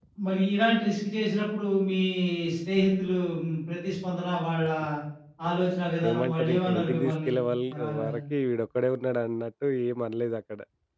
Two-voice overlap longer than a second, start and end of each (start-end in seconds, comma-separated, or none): 6.1-7.3